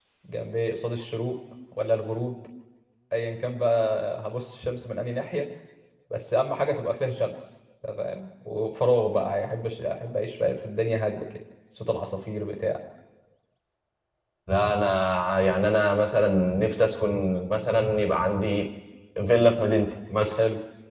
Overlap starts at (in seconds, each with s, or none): none